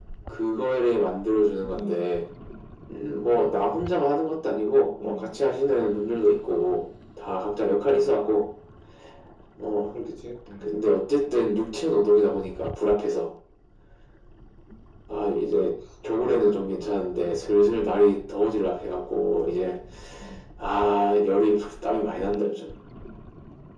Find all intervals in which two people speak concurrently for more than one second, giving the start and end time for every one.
none

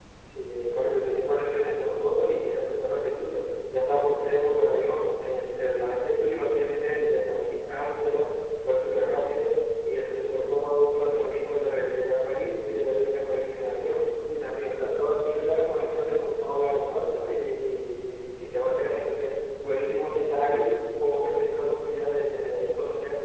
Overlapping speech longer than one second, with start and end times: none

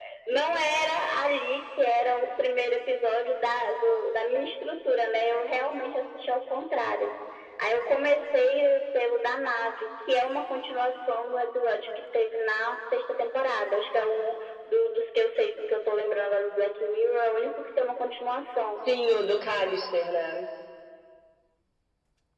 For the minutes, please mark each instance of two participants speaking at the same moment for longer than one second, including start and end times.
none

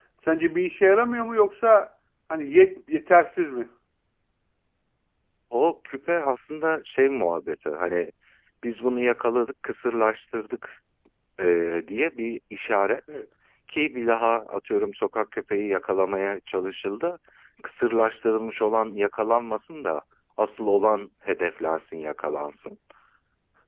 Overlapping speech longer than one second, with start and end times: none

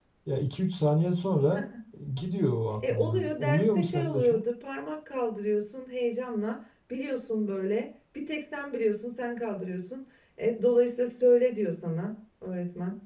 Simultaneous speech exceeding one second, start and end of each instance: 2.8-4.4

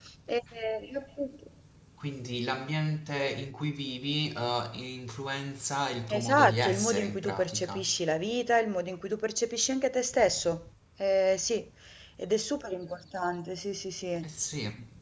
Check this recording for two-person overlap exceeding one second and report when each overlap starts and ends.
6.1-7.9

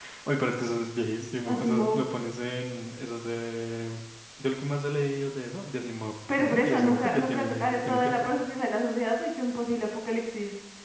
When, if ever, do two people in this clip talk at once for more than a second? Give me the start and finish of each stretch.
6.4-8.3

